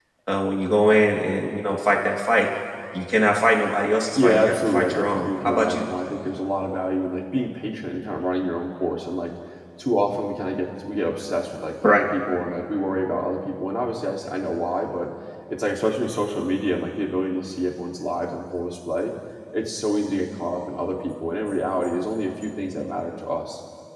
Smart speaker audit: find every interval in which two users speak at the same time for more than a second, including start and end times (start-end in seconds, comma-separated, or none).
4.2-5.9